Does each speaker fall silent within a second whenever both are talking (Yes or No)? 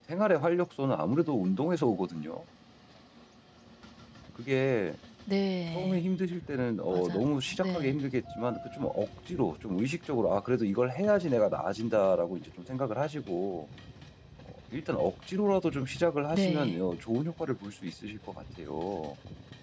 Yes